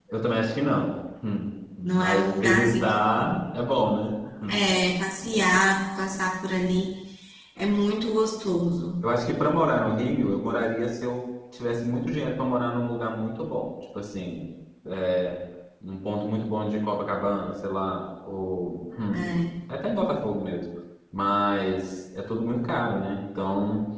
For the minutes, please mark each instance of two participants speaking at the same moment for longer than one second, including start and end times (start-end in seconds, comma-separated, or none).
1.8-3.0